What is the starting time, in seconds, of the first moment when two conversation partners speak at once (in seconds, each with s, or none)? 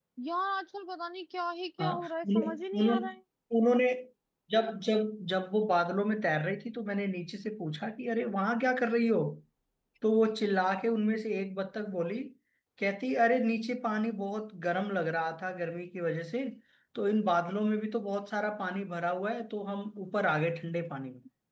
1.8 s